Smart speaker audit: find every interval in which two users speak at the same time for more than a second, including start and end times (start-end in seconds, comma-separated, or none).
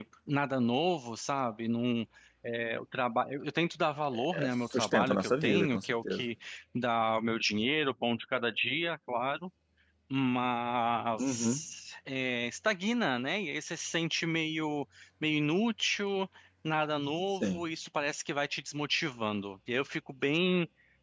4.1-6.2